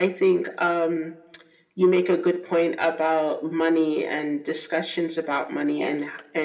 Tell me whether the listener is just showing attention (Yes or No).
Yes